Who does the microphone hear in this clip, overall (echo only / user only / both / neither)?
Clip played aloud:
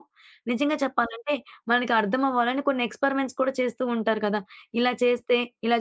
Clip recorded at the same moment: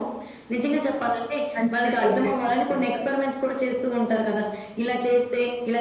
both